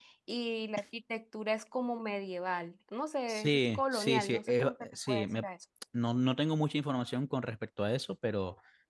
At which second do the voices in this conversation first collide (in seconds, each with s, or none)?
3.3 s